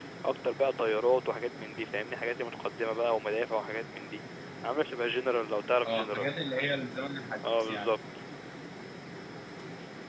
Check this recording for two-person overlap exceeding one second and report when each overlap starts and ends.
none

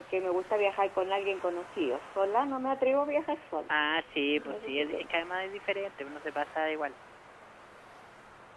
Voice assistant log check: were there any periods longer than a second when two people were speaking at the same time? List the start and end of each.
none

